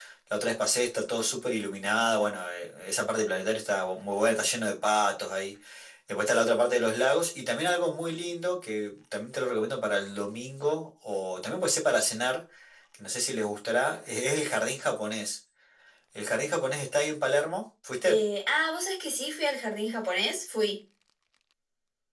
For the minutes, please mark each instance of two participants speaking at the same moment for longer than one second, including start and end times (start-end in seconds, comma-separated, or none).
none